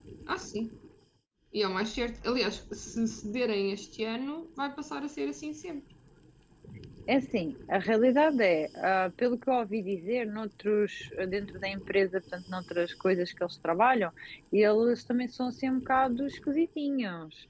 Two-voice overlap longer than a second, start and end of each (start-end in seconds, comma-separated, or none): none